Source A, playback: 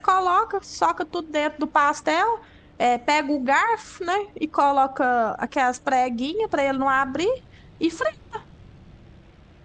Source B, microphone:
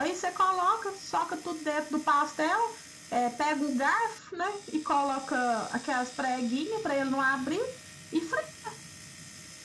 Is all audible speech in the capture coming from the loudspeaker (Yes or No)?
Yes